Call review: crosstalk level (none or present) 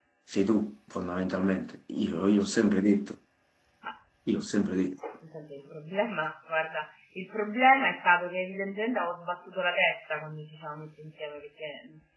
none